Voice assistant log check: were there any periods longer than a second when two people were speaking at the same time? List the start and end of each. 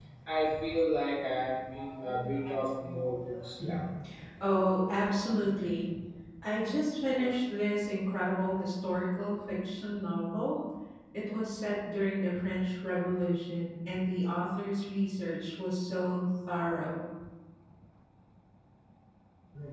none

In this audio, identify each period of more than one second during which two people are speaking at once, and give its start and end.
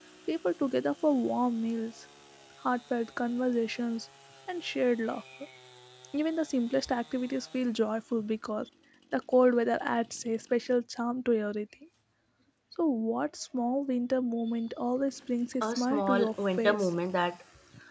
15.6-16.9

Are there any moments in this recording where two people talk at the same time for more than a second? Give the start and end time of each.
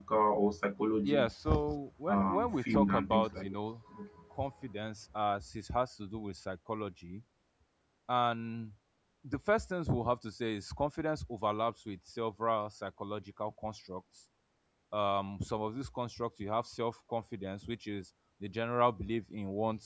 2.1-3.6

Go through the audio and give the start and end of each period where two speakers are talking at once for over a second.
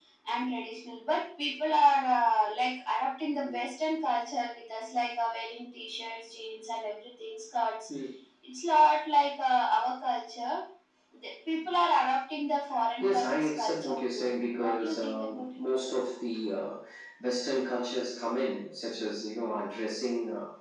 13.0-15.7

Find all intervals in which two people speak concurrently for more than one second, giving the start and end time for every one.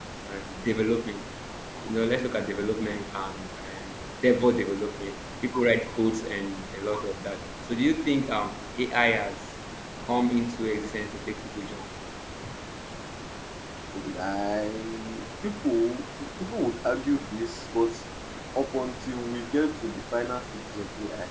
none

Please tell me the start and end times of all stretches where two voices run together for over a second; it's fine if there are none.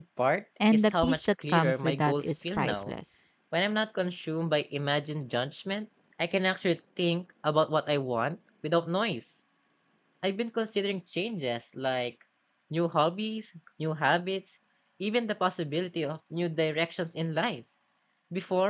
0.7-2.9

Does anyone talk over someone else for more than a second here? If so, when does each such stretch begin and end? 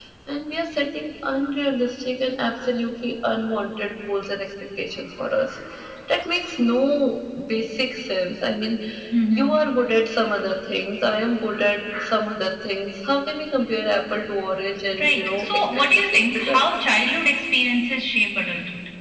15.0-16.7

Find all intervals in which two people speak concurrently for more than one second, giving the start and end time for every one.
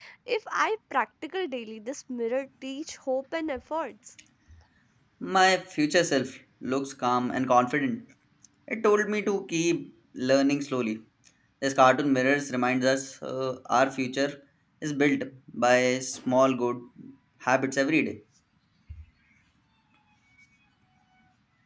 none

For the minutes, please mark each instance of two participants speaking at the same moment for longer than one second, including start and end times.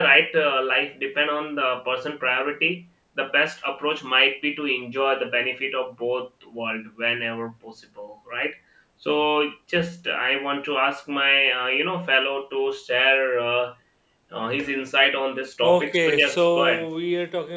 15.6-16.9

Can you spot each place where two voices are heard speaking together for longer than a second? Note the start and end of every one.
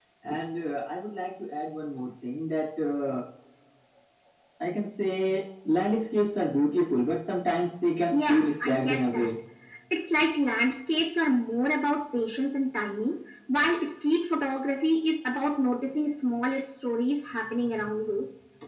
8.1-9.3

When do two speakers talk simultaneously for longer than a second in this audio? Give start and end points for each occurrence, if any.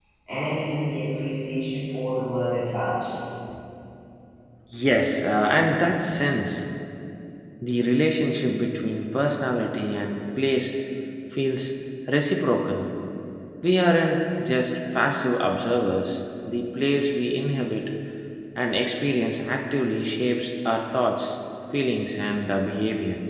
none

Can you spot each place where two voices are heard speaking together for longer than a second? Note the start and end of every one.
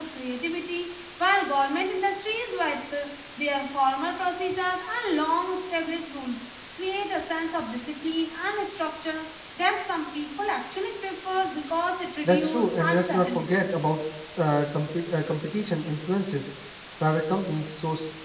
12.2-13.6

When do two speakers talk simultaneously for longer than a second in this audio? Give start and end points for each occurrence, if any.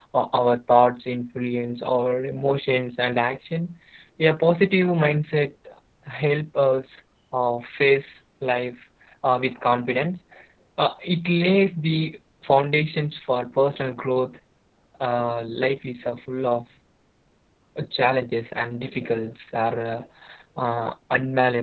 none

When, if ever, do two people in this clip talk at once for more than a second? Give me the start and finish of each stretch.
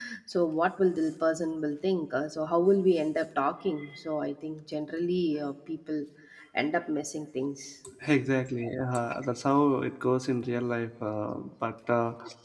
none

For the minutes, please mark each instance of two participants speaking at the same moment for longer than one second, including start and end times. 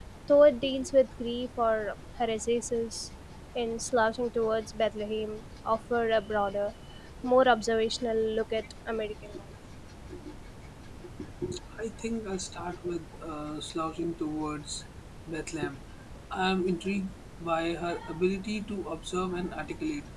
none

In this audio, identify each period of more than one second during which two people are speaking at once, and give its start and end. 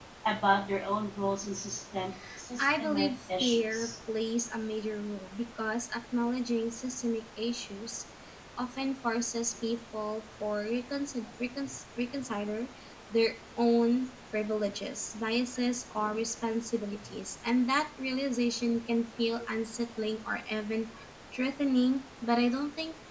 2.6-3.9

